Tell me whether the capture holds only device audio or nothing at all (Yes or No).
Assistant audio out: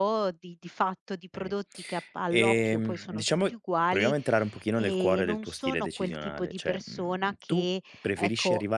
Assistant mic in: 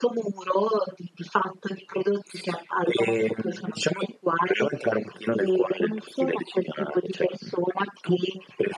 Yes